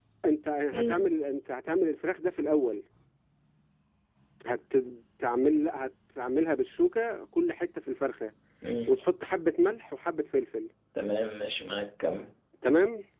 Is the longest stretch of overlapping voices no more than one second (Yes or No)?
Yes